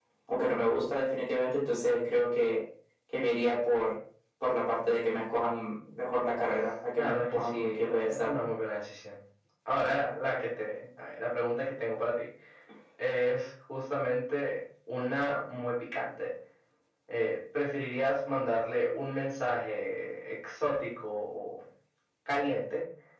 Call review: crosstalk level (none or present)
present